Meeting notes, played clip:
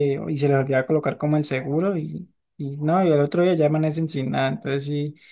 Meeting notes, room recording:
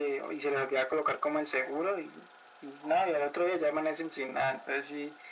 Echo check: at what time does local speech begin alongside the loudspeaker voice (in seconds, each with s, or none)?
none